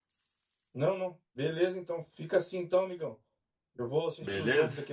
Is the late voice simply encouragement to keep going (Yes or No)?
Yes